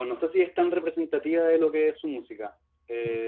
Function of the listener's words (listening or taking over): listening